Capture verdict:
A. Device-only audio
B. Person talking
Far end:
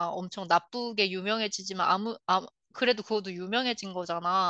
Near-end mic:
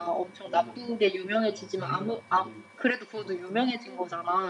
B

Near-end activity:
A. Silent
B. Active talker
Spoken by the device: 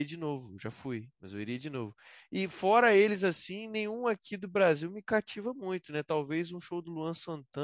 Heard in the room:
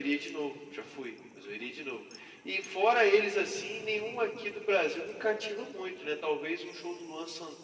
A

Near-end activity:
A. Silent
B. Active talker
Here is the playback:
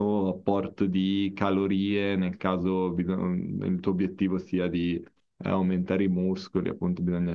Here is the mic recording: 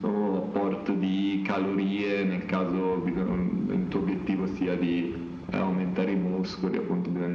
A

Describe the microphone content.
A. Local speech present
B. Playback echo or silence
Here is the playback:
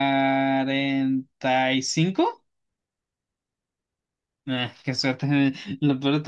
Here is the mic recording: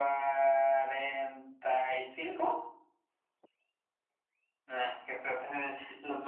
B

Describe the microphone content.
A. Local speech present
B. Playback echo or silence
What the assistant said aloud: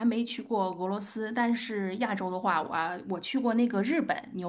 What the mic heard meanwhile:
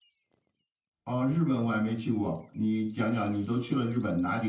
A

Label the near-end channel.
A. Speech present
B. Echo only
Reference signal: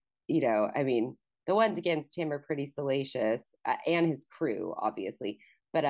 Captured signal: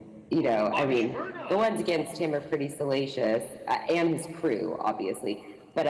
A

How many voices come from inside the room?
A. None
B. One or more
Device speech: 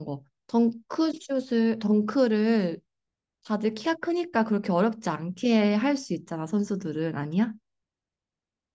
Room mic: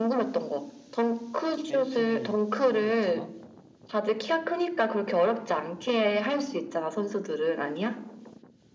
B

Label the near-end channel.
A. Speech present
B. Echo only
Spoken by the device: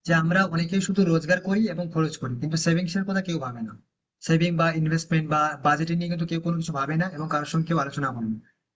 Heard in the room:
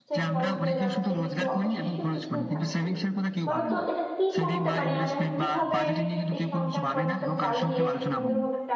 A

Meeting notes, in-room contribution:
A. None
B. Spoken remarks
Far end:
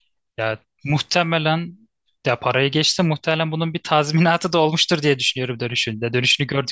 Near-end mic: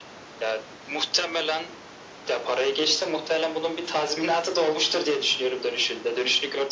A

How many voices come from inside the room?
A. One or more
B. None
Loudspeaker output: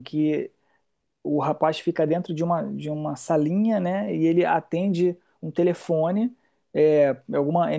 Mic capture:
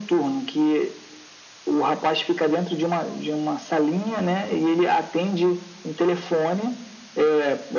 B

